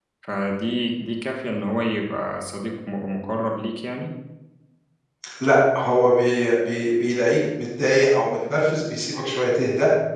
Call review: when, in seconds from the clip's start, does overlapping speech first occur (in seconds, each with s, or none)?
none